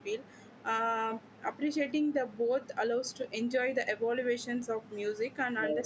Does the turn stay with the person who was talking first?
No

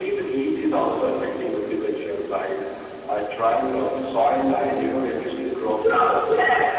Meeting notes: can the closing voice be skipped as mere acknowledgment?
No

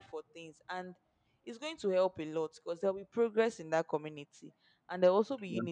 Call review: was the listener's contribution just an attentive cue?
Yes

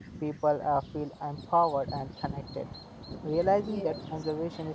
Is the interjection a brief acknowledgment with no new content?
Yes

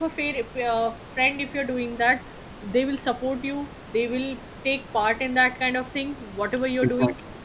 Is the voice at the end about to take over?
No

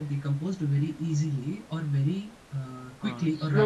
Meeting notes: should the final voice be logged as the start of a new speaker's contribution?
Yes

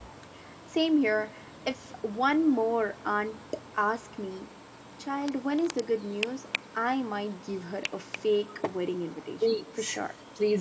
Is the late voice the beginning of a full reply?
Yes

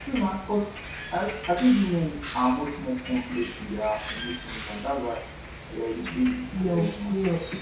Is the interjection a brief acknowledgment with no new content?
No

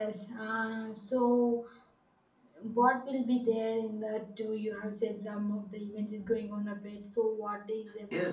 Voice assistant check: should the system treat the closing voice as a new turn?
Yes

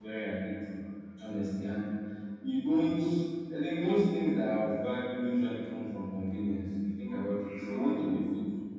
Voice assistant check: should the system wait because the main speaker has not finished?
Yes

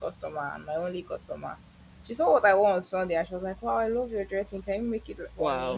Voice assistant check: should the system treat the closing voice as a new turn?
No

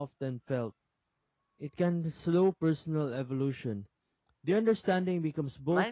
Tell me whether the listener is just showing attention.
No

